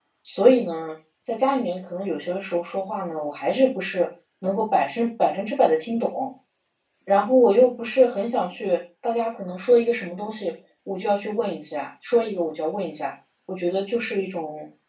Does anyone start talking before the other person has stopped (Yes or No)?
No